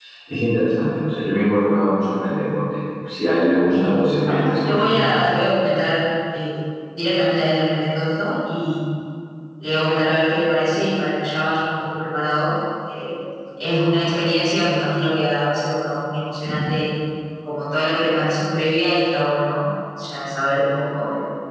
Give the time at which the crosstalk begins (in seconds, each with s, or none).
3.7 s